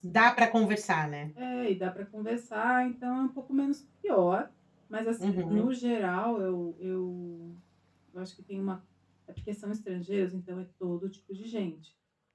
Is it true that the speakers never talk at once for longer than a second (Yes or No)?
Yes